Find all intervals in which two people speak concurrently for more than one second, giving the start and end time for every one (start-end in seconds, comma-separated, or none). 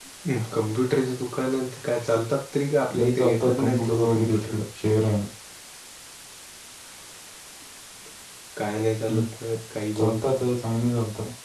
3.0-4.5